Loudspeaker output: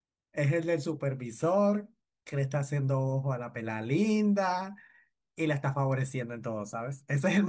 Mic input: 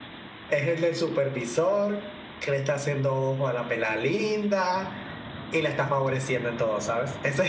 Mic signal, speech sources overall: echo only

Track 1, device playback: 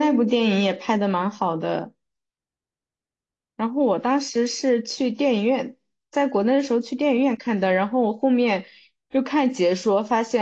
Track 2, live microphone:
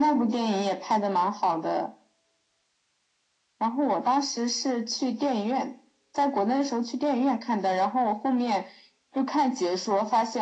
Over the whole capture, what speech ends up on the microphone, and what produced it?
echo only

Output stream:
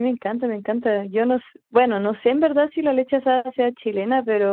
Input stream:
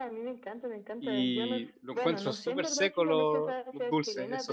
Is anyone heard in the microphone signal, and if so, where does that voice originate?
both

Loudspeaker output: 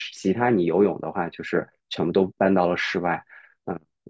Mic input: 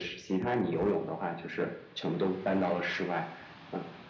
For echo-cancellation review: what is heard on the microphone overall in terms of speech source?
echo only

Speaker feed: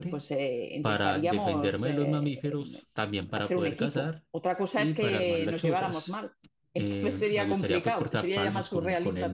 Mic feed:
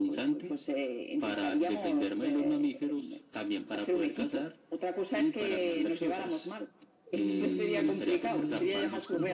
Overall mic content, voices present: both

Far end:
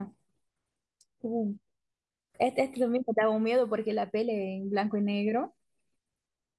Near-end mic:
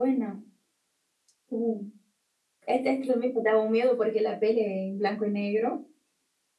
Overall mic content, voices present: echo only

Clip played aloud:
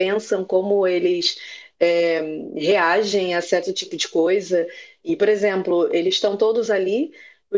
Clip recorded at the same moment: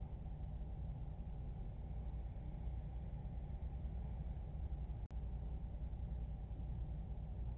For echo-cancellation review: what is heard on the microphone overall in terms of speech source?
neither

